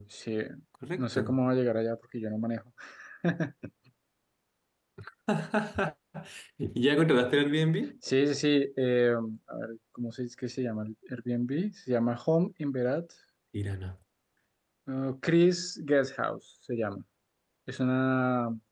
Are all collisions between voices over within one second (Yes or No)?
Yes